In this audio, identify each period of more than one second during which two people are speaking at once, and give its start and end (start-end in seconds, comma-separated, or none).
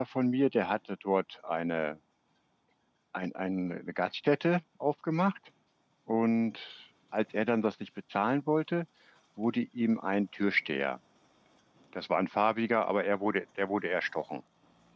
none